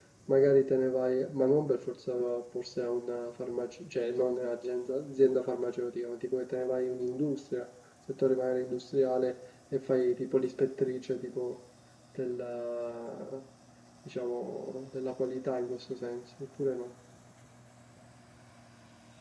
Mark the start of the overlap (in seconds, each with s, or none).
none